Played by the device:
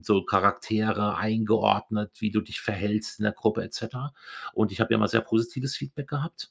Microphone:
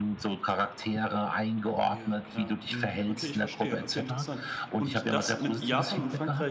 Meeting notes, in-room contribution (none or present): present